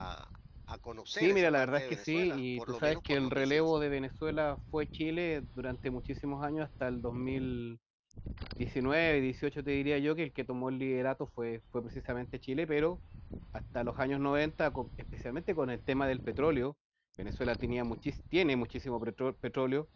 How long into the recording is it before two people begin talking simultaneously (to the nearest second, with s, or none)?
1 s